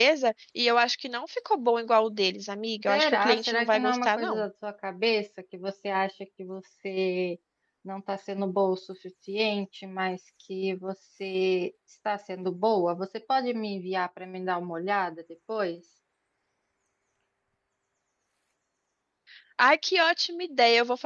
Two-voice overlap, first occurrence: 3 s

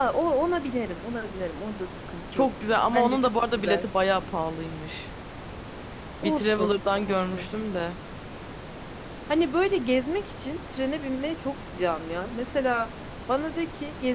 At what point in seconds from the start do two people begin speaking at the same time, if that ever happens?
2 s

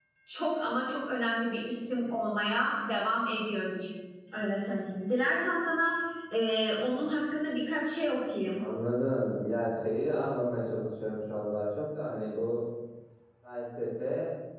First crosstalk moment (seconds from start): none

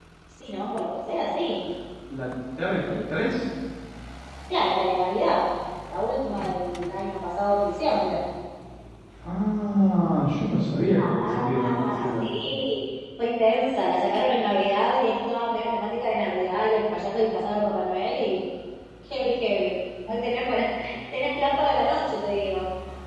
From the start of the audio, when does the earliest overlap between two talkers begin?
11 s

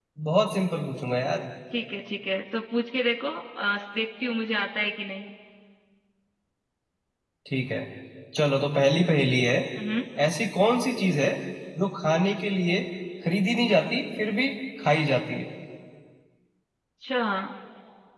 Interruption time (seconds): none

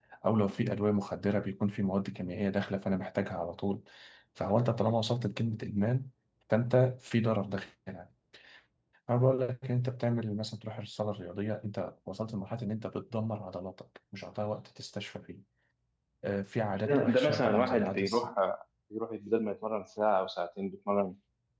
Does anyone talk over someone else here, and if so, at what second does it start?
17 s

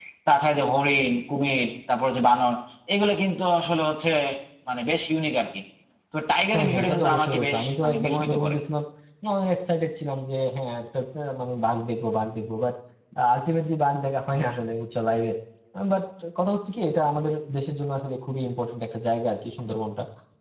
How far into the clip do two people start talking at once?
7 s

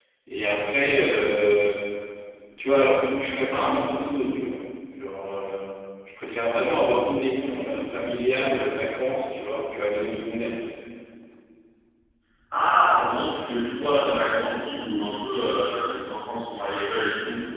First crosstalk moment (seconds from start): none

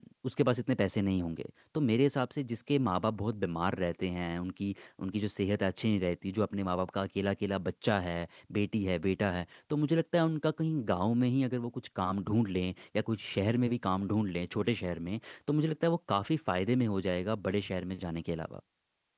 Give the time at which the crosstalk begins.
none

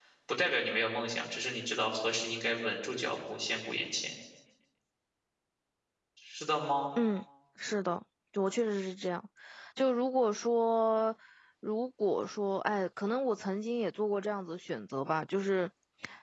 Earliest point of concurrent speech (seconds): none

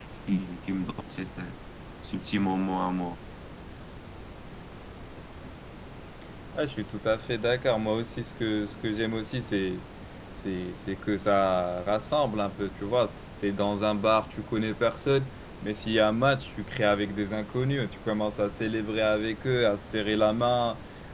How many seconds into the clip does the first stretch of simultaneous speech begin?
none

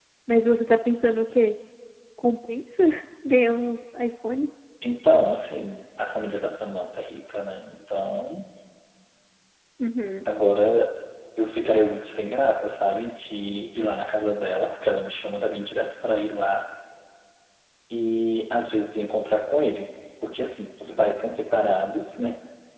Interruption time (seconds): none

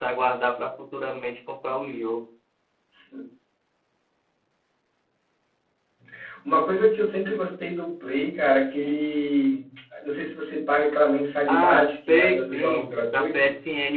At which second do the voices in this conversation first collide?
11 s

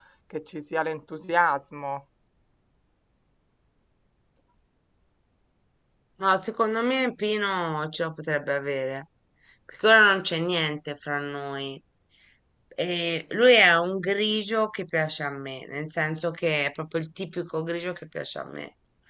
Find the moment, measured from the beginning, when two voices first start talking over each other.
none

